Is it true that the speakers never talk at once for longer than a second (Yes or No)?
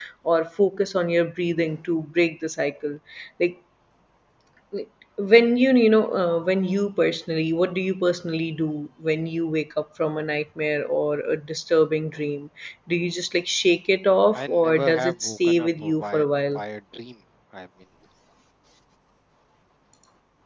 No